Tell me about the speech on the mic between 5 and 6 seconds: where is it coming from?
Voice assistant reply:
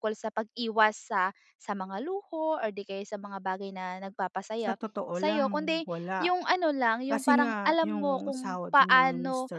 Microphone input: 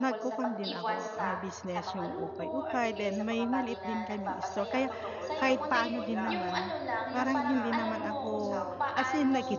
both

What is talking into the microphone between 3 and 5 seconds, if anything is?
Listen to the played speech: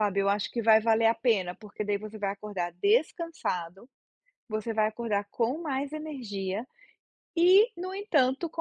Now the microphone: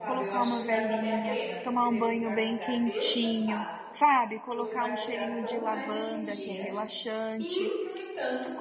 both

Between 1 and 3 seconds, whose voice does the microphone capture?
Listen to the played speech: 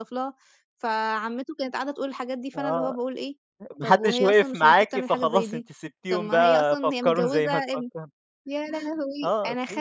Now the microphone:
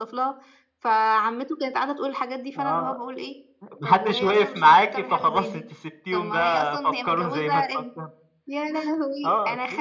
echo only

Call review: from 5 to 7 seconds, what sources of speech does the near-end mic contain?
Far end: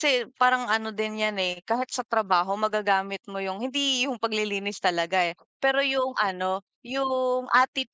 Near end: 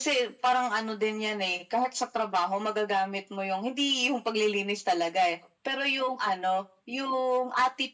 echo only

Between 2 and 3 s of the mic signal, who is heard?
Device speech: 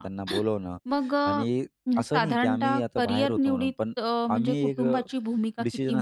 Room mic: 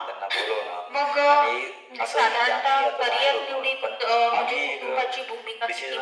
echo only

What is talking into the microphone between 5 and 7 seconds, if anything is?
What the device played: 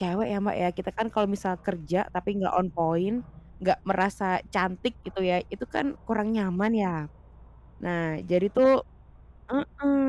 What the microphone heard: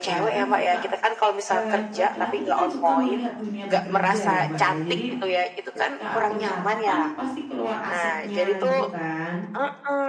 both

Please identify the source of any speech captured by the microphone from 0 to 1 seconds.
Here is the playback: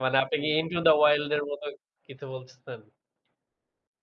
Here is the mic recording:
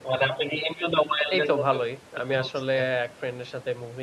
echo only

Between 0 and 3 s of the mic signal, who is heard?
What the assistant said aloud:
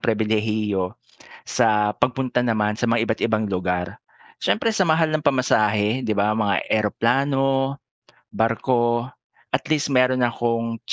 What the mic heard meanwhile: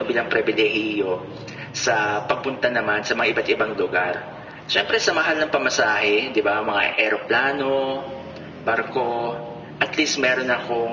echo only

